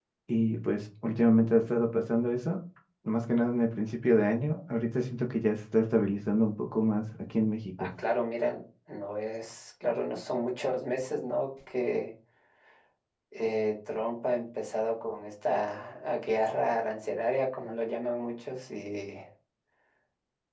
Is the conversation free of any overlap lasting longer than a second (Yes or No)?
Yes